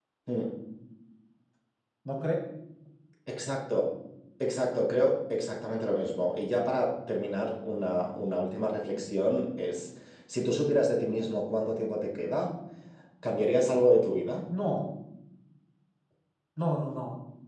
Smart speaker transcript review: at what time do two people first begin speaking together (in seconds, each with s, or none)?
none